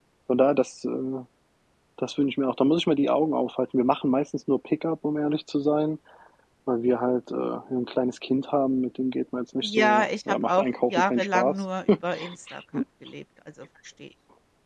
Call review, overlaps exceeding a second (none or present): present